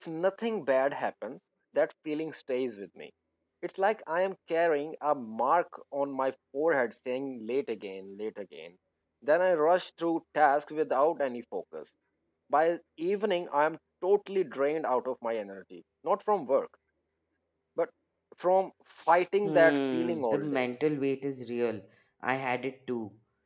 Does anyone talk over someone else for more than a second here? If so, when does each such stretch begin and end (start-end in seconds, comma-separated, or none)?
19.4-20.6